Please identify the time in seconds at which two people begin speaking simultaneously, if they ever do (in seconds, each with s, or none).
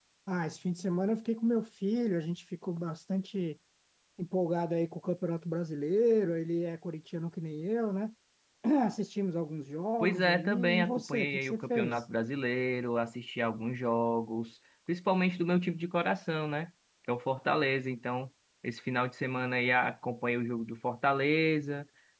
10.0 s